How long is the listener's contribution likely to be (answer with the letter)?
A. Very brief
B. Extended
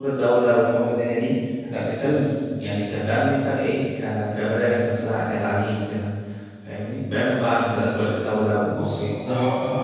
B